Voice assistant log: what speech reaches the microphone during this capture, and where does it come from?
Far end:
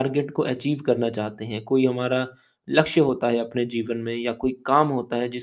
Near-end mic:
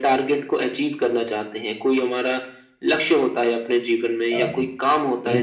both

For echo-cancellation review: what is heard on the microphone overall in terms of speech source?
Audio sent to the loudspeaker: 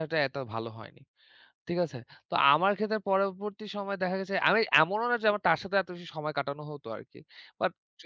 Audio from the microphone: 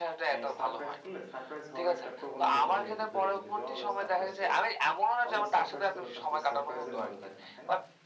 both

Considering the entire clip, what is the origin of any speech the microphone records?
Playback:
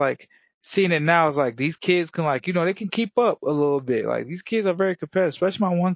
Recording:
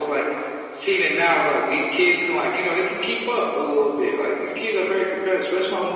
echo only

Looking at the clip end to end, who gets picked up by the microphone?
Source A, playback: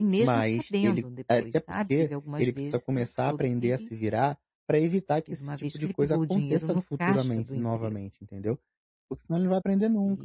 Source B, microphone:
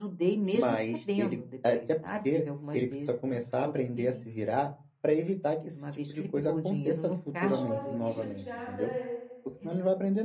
both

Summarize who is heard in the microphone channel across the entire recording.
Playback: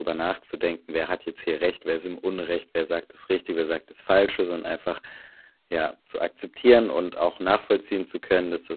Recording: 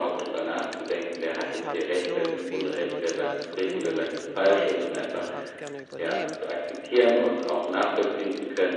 both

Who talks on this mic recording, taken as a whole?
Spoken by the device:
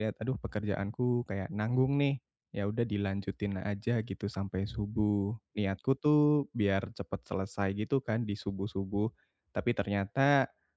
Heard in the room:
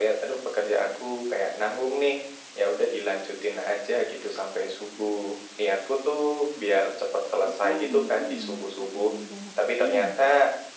both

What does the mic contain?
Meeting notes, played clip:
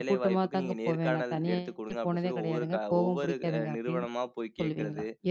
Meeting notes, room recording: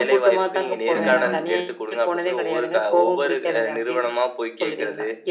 both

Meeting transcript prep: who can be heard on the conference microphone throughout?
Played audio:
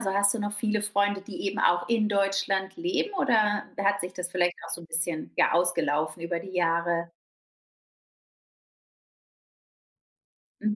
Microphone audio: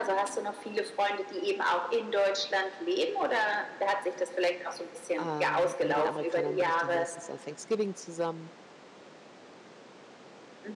both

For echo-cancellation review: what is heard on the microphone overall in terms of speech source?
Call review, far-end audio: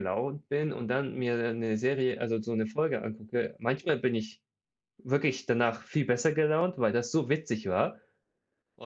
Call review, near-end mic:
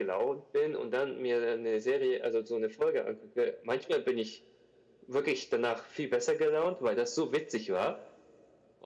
echo only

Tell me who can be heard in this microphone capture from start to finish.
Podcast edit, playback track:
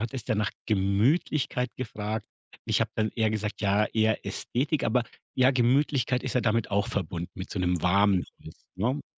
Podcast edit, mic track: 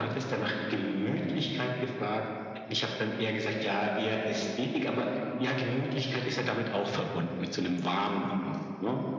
echo only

